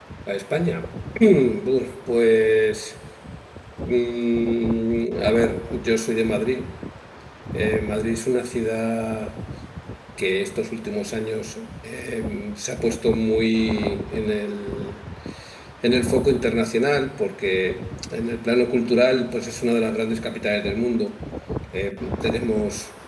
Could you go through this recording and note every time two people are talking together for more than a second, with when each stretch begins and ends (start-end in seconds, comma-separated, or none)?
none